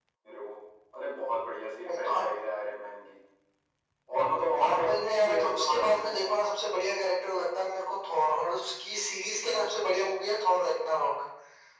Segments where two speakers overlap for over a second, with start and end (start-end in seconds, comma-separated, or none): 4.6-6.1